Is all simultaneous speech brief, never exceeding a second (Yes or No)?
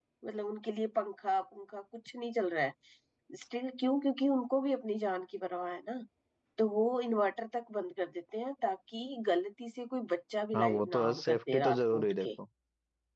No